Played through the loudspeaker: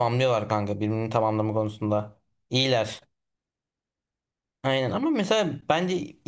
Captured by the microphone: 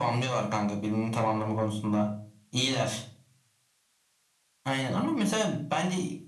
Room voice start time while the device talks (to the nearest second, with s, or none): none